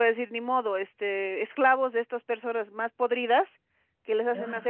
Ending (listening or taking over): listening